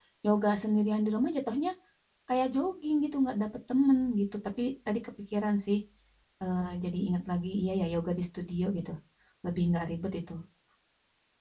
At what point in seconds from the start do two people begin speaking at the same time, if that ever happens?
none

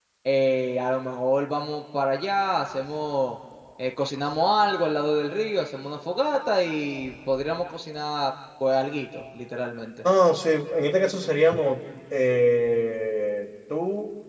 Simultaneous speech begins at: none

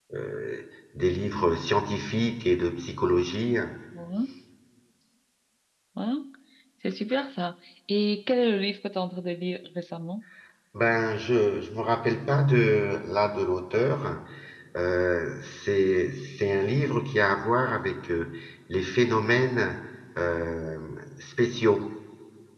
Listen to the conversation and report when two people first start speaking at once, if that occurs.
none

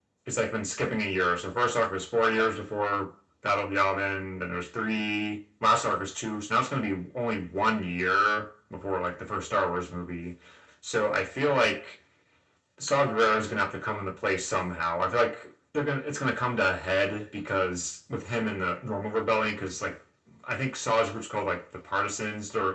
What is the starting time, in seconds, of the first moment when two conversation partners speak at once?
none

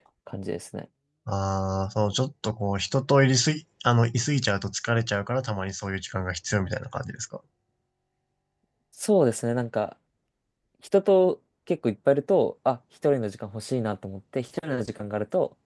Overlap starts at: none

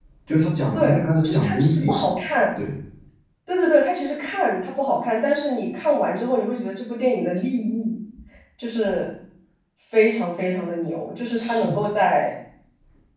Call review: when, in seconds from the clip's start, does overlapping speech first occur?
1 s

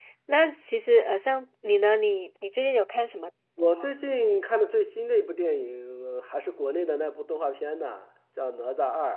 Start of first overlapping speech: none

